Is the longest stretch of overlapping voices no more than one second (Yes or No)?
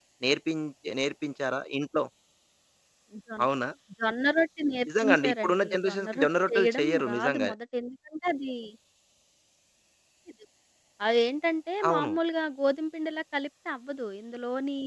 No